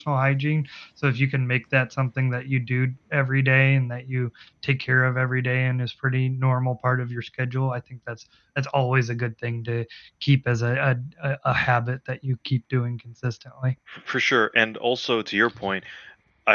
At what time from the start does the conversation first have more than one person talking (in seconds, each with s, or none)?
none